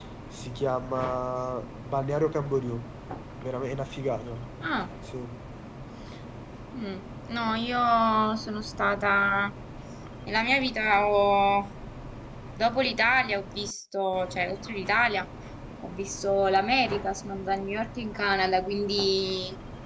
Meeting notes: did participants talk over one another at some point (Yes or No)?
No